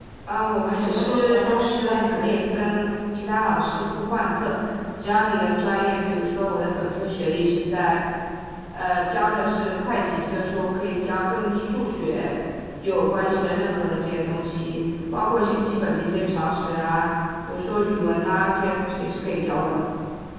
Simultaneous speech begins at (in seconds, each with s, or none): 0.7 s